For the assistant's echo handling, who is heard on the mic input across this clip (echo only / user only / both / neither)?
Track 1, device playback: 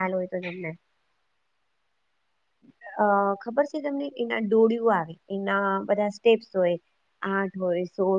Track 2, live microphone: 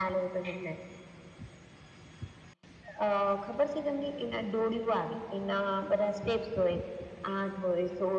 echo only